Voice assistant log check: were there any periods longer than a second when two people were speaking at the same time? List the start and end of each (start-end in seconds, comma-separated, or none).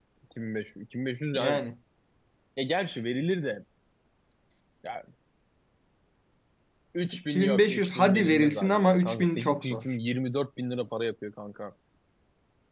7.3-9.9